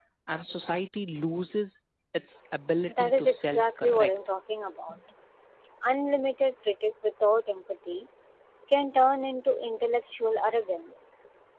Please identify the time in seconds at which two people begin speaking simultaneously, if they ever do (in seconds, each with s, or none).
2.9 s